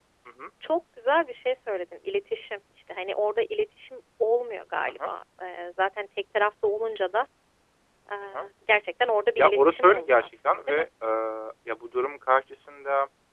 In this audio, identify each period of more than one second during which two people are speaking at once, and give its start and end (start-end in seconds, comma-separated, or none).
9.4-10.9